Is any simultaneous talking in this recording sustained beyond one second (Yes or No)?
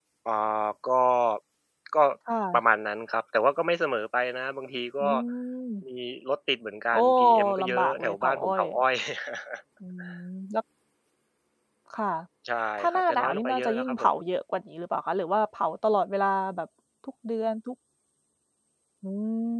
Yes